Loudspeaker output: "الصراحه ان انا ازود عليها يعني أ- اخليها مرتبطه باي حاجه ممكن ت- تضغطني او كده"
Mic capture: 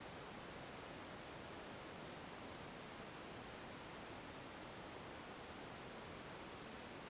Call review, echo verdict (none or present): none